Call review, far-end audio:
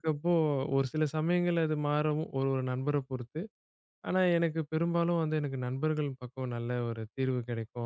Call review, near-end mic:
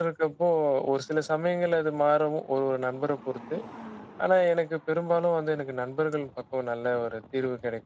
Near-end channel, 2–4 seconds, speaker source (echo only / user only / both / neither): echo only